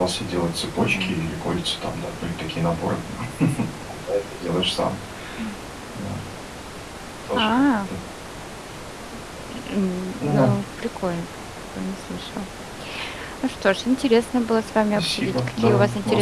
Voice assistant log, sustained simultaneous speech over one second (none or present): present